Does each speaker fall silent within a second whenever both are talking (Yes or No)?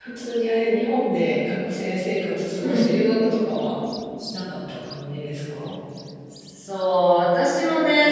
Yes